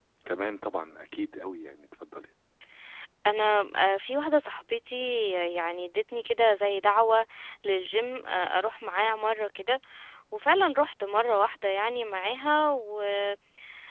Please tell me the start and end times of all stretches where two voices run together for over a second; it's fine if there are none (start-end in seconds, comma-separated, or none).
none